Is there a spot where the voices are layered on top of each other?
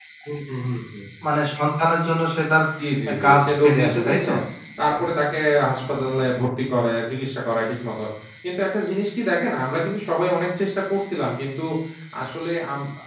Yes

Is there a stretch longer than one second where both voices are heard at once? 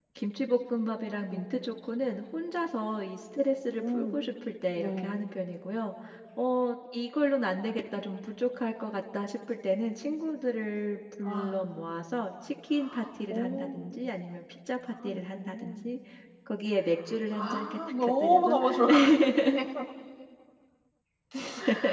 Yes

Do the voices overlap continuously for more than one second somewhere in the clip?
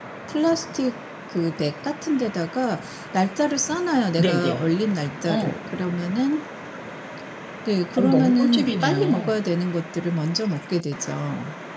Yes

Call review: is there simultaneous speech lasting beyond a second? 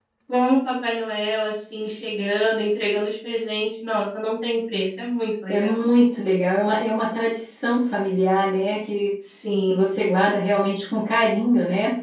No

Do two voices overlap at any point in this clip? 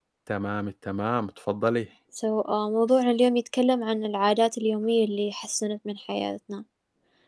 No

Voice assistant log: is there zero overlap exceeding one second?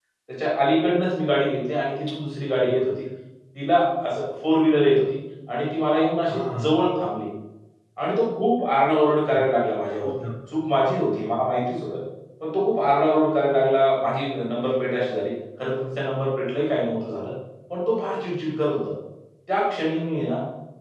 Yes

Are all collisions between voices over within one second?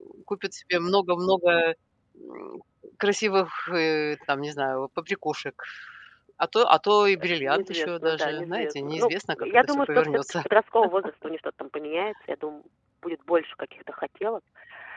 No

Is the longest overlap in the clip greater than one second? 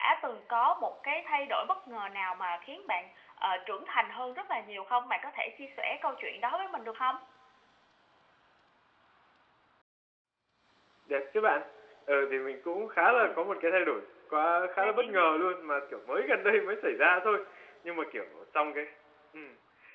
No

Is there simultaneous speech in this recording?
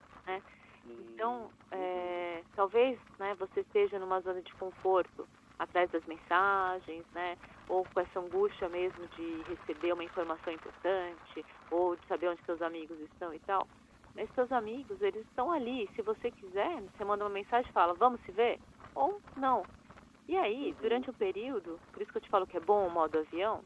Yes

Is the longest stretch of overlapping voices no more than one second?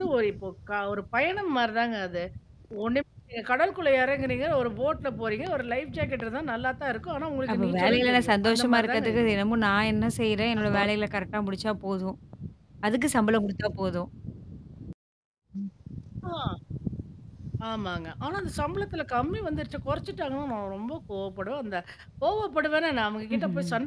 No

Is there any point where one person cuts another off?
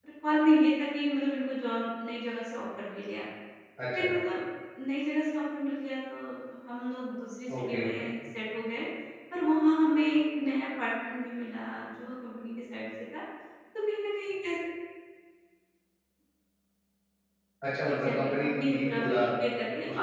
Yes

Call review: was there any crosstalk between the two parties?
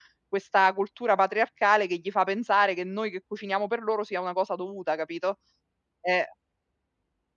No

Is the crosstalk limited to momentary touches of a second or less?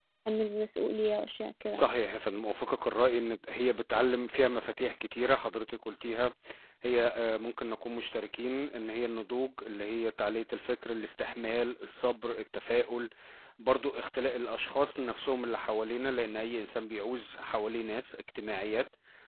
Yes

